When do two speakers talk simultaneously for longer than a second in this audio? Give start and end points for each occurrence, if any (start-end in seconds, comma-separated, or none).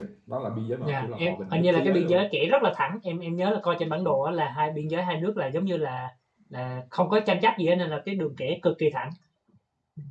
0.8-2.2